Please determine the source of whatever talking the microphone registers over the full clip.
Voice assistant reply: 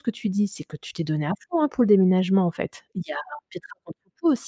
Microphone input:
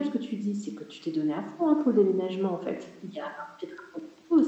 echo only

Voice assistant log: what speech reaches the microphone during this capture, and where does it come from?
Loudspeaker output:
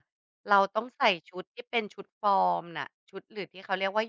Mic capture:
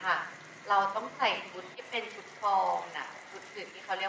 echo only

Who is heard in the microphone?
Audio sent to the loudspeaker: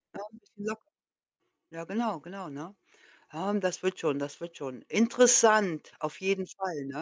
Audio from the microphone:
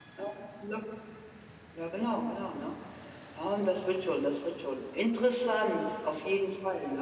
echo only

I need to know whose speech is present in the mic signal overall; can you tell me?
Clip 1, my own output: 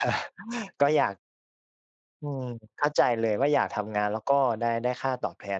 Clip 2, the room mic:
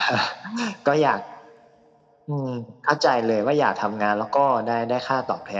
echo only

